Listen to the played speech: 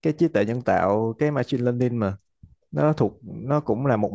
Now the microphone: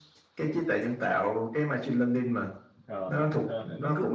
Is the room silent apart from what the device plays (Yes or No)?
No